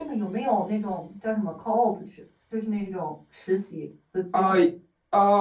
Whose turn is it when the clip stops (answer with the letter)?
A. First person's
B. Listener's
B